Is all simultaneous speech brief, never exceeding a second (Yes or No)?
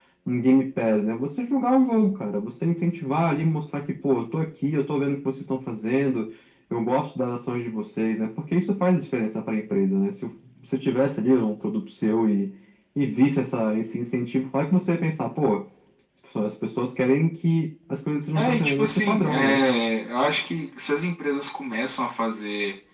No